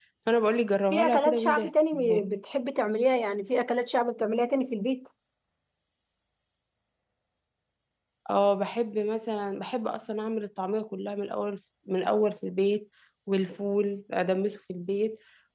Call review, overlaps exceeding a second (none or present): present